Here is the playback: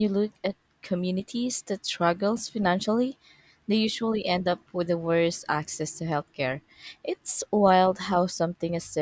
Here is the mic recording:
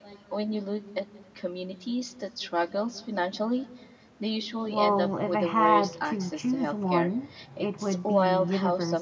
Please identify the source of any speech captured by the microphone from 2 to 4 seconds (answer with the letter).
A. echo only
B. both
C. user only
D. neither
A